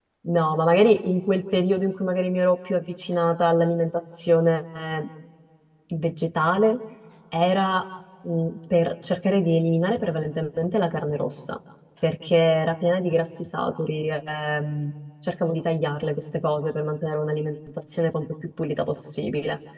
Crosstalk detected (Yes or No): No